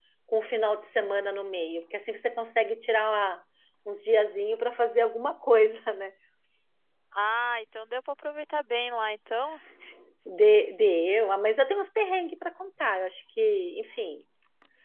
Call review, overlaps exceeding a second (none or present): none